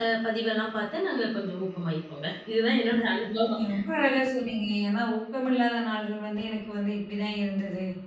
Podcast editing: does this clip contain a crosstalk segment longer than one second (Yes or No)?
No